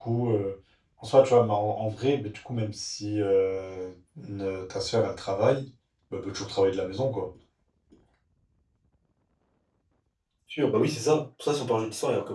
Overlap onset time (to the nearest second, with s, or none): none